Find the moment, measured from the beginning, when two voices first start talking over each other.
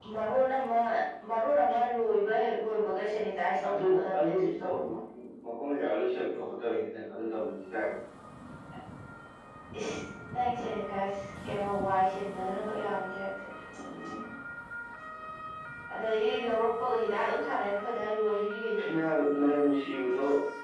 3.6 s

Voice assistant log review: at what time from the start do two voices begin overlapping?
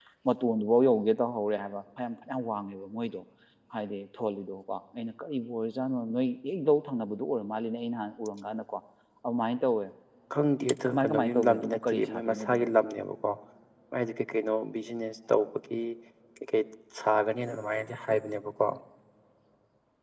10.8 s

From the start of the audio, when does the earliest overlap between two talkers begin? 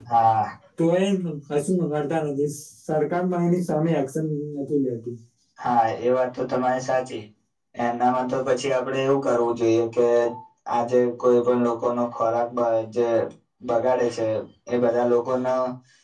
none

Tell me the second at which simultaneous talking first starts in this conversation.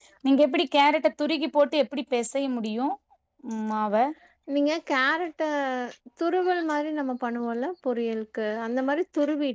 none

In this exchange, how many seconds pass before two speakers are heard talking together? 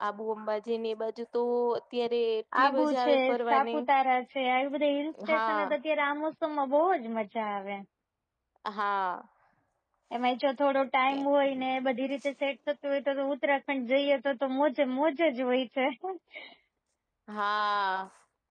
2.6 s

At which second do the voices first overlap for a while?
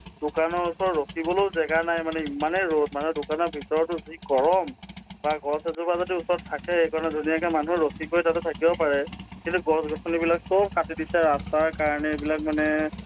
none

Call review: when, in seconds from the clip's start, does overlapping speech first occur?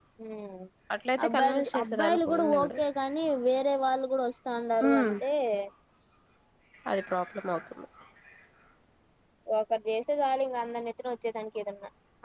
1.3 s

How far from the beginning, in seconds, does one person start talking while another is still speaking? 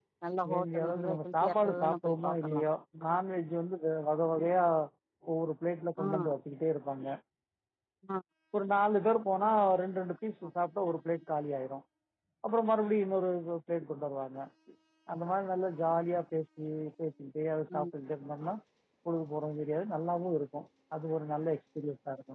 0.5 s

